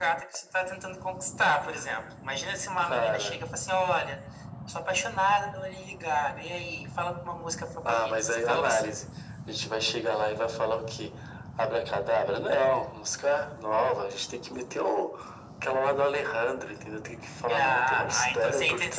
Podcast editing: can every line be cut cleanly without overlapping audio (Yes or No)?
No